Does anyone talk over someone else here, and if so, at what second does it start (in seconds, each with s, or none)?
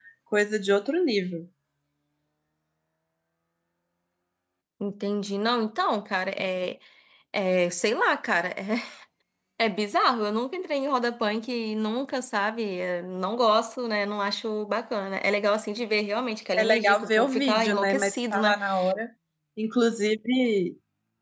16.6 s